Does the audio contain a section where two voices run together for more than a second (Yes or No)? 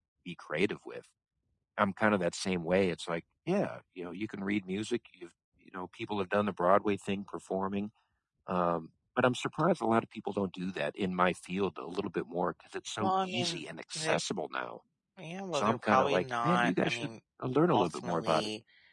Yes